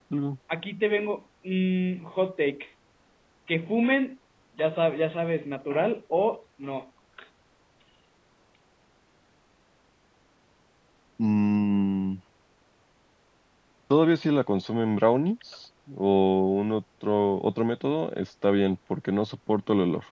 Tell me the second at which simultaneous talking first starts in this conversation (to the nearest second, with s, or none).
none